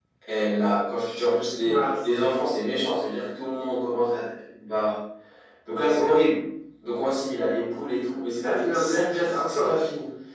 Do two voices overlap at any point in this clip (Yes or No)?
Yes